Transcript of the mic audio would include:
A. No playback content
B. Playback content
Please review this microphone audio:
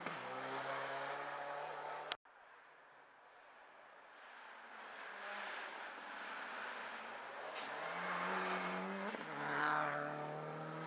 A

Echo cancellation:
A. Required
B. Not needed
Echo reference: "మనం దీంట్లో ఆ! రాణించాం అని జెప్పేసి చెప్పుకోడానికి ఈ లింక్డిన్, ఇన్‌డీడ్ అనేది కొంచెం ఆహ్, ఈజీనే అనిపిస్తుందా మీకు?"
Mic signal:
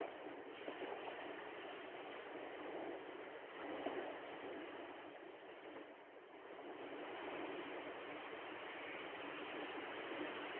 B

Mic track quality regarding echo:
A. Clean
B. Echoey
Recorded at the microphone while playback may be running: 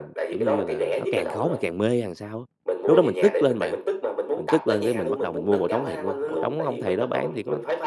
B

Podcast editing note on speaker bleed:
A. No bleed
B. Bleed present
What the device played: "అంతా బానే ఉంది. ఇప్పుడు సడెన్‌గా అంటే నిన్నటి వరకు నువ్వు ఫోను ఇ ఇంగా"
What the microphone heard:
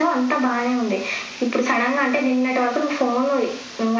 B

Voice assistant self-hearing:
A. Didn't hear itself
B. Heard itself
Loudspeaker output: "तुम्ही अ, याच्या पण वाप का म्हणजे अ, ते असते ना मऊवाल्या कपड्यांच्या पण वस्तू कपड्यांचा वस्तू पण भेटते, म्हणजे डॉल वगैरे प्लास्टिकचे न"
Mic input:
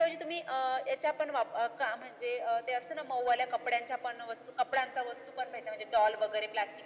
B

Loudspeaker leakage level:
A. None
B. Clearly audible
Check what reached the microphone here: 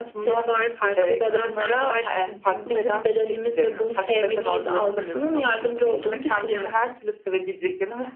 B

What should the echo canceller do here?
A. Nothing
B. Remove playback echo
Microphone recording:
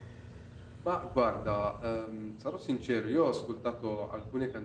A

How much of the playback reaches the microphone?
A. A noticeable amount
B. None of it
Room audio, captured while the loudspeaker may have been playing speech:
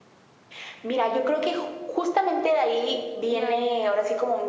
A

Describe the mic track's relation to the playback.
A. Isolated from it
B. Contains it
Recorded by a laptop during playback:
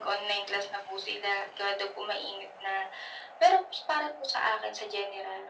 B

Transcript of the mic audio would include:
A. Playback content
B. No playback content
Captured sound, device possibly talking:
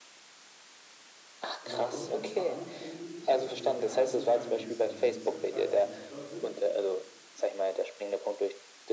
A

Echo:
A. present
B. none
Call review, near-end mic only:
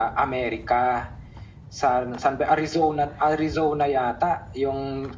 A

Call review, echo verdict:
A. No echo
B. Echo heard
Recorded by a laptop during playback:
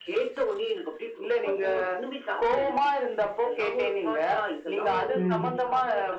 B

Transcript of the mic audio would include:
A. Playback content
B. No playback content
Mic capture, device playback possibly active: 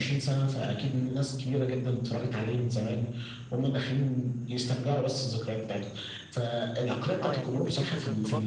A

